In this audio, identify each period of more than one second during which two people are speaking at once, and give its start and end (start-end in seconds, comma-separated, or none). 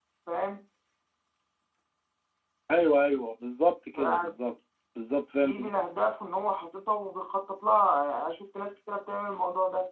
none